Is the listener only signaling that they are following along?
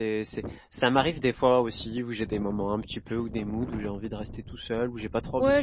No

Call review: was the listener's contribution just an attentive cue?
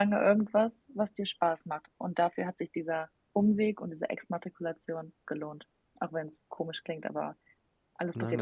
No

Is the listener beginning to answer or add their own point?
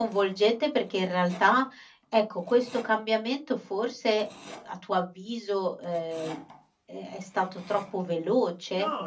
Yes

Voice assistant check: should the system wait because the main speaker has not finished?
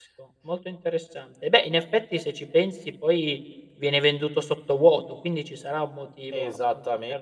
No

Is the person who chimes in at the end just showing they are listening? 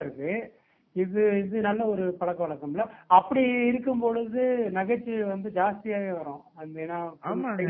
No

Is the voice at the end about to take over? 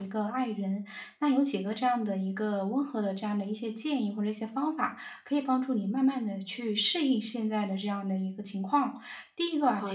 No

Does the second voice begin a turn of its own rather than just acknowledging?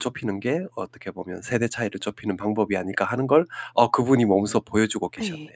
Yes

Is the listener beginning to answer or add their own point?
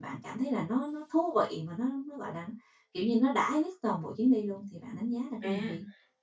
Yes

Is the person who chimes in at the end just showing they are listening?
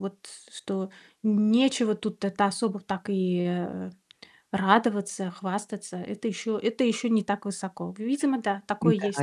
No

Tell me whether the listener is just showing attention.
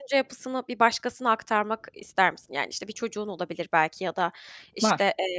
Yes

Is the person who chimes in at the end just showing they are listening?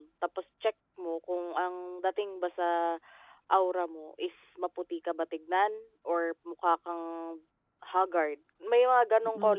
No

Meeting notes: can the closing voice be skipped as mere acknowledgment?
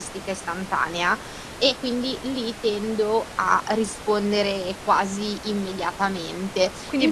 No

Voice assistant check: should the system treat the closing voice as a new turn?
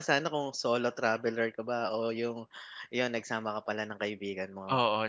Yes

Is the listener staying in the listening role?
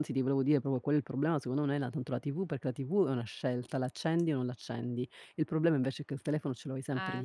Yes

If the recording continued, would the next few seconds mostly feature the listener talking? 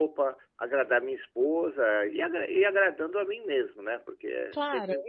Yes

